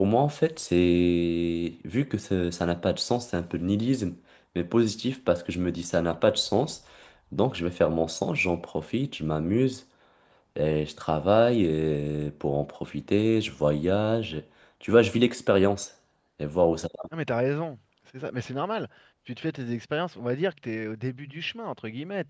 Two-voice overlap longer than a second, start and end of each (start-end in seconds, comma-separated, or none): none